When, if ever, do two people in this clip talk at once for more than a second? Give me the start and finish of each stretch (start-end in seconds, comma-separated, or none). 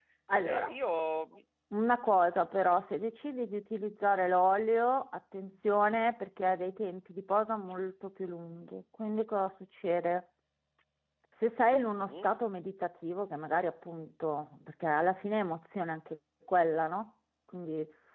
none